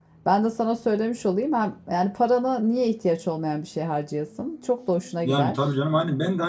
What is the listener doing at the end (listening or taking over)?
taking over